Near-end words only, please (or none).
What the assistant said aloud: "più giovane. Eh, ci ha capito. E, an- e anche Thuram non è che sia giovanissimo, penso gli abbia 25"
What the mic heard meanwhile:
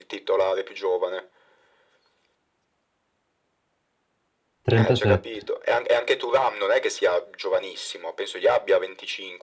37,